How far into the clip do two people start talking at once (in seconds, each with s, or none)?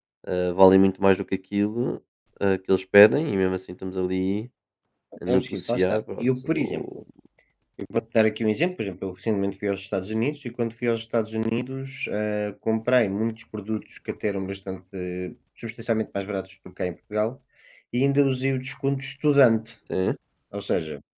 5.3 s